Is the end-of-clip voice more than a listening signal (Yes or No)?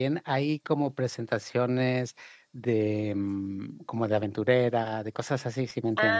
Yes